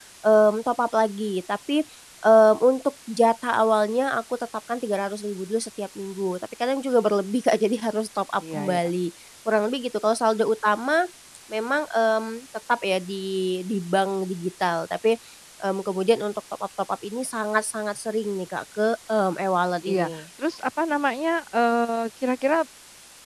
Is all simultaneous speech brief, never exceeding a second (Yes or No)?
Yes